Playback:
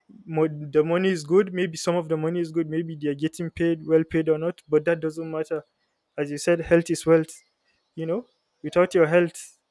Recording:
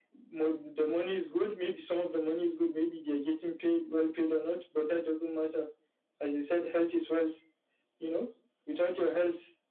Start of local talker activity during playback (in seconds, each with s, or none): none